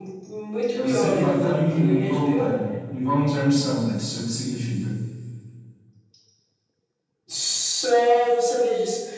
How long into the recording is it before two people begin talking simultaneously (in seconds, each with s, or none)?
0.8 s